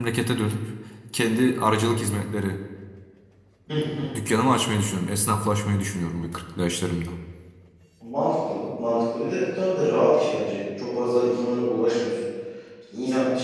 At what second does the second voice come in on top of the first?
none

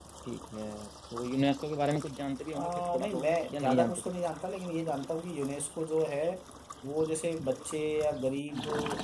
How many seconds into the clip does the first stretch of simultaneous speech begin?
3 s

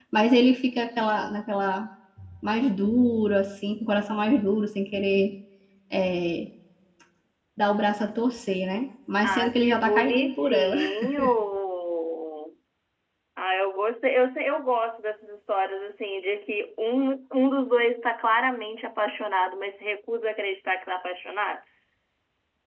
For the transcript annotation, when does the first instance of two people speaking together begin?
9 s

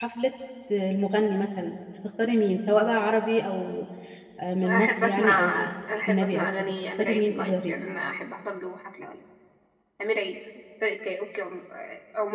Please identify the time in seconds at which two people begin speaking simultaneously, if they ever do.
5 s

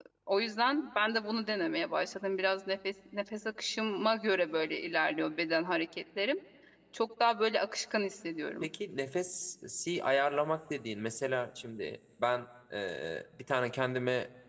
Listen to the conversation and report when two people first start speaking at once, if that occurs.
none

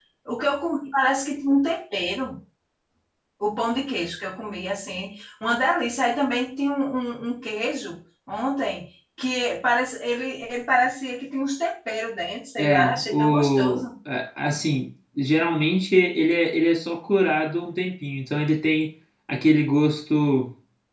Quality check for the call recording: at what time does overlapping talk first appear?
13 s

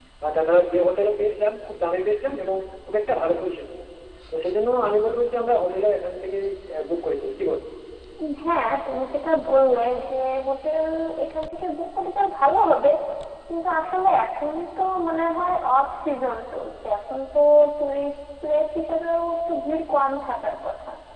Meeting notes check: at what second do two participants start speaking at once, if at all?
none

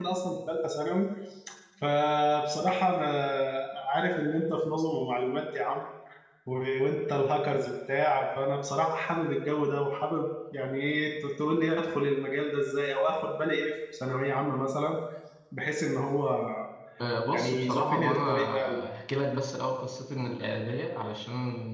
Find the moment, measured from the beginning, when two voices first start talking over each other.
17 s

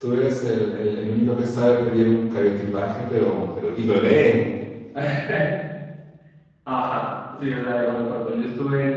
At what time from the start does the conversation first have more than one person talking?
none

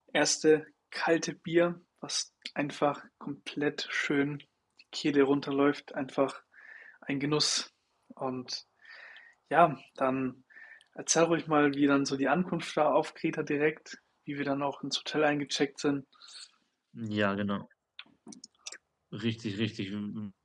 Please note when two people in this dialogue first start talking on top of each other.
none

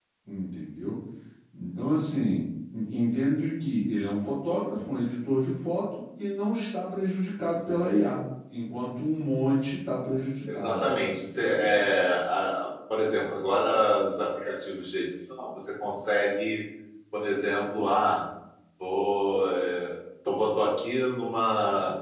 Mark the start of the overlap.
10 s

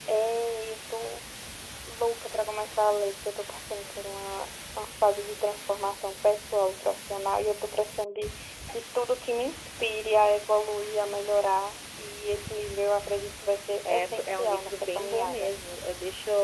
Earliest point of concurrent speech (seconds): 14 s

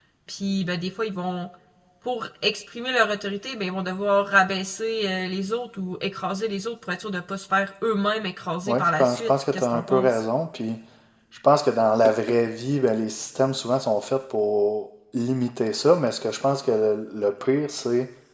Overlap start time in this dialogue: 9 s

